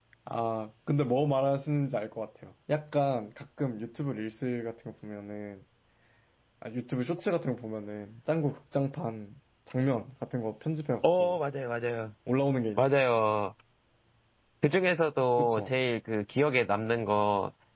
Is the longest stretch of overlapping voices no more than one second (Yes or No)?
Yes